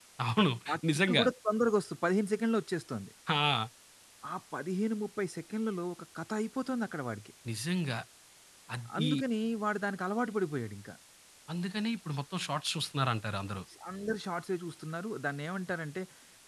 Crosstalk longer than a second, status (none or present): none